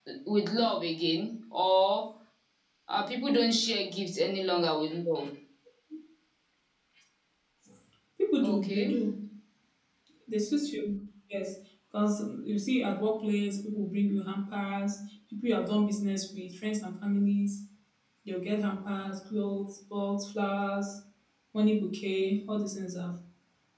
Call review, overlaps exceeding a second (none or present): none